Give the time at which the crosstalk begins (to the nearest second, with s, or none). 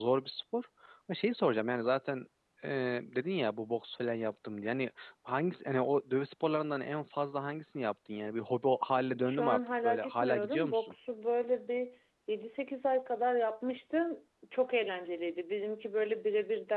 9 s